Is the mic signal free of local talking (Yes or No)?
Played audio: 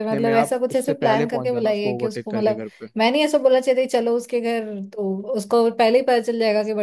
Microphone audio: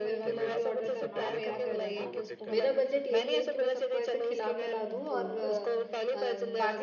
No